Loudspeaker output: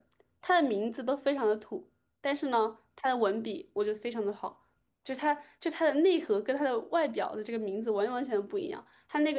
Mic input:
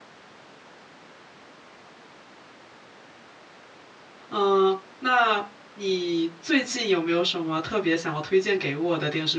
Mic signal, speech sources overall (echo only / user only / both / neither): user only